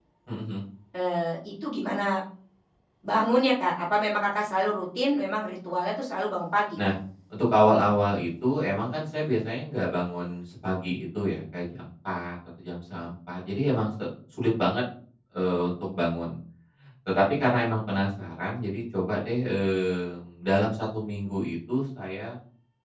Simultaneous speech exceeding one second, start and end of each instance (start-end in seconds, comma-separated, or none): none